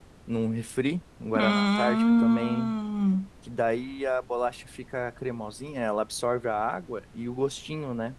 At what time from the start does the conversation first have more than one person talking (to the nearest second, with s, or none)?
1 s